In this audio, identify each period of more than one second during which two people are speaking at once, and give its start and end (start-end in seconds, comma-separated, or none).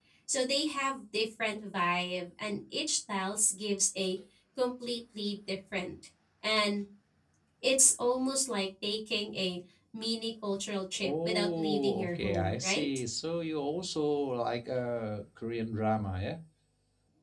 11.0-12.8